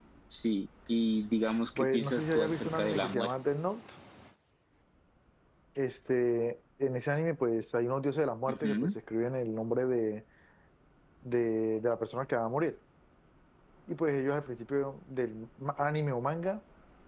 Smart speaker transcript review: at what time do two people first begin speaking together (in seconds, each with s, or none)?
1.8 s